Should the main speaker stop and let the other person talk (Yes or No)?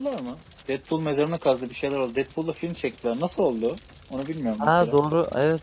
Yes